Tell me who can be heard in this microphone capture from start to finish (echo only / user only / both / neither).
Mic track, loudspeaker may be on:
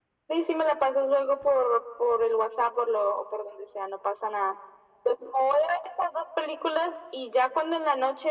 echo only